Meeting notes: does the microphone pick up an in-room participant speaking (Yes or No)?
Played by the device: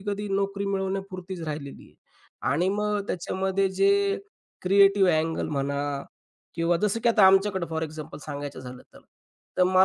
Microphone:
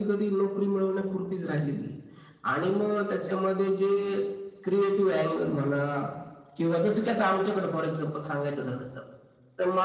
No